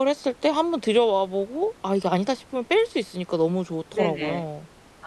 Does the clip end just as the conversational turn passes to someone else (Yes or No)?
Yes